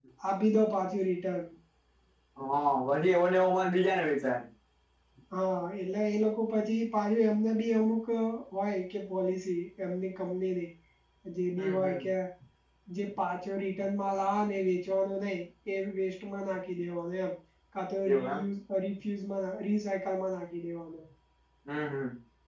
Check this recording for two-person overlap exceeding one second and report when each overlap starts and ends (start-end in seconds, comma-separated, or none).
none